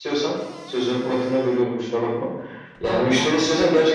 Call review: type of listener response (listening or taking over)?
listening